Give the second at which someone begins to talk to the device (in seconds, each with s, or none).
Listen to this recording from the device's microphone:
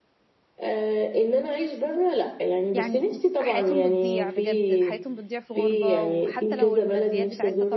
2.7 s